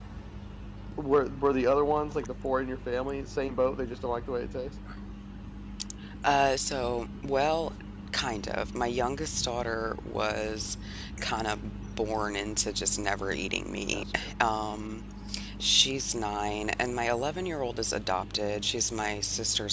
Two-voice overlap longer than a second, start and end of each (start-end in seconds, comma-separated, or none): none